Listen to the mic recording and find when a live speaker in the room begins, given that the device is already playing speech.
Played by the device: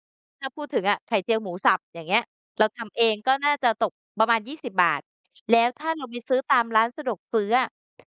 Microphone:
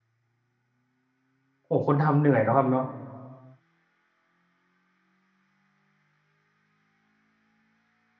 1.7 s

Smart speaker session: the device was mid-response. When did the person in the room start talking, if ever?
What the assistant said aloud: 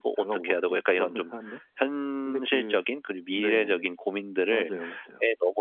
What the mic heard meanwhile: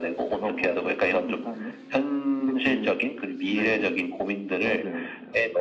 none

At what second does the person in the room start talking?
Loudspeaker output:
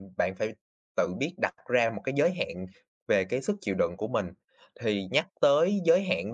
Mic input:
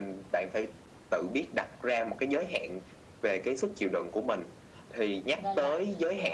5.3 s

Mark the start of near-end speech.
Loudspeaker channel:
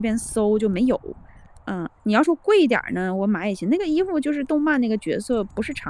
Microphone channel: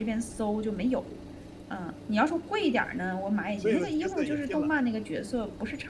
3.6 s

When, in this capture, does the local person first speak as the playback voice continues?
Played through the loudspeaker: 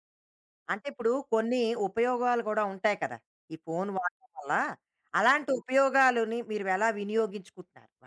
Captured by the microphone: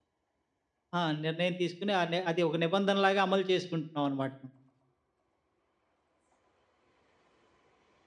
1.0 s

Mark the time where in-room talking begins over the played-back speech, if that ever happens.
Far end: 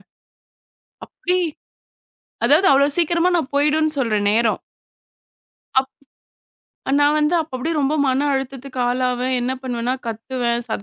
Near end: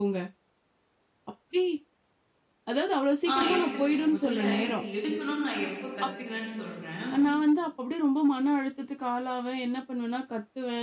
3.3 s

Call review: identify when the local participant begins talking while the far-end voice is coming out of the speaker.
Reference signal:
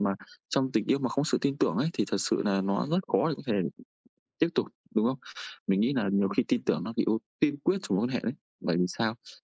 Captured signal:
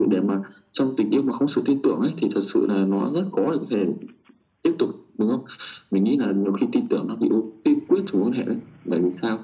none

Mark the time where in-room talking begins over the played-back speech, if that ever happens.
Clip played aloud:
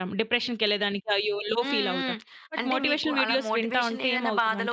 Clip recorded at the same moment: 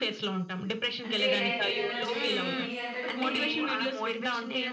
1.1 s

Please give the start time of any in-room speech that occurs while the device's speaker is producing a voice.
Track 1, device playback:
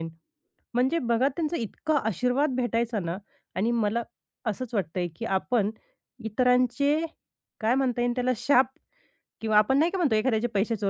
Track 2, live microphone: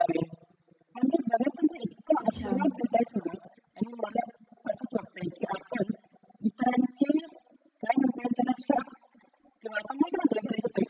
2.2 s

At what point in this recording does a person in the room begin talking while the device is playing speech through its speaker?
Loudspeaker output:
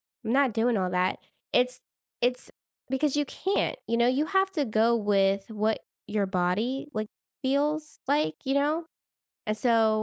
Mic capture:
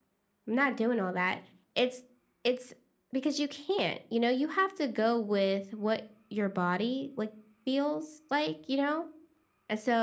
none

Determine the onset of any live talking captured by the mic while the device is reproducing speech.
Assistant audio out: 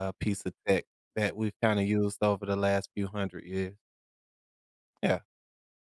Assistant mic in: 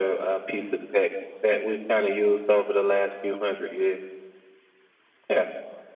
none

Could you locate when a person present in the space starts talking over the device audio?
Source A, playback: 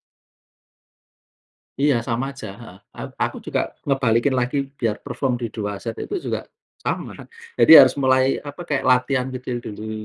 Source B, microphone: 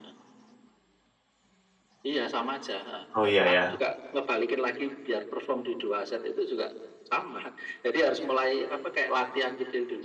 3.1 s

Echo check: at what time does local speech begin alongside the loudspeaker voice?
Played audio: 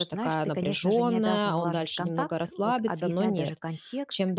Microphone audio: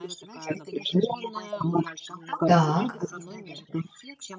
2.4 s

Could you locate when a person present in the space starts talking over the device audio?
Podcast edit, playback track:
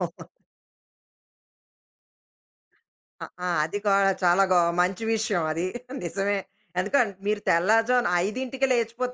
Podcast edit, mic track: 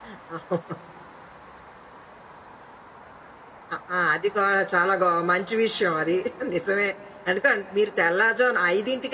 none

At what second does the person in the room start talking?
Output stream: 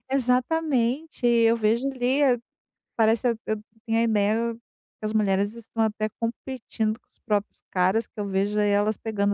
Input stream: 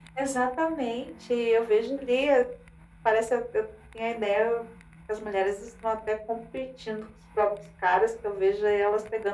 none

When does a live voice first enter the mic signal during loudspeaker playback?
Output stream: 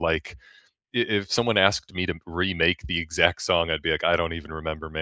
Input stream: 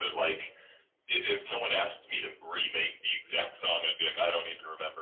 none

